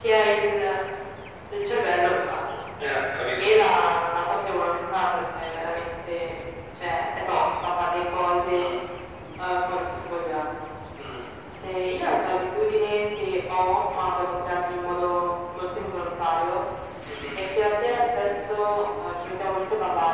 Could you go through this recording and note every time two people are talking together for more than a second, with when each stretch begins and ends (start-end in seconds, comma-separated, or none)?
none